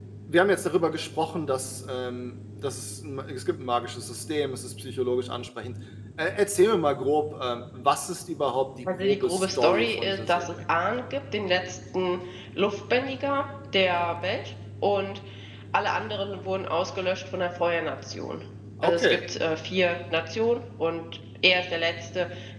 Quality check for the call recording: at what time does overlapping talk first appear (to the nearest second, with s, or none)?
9 s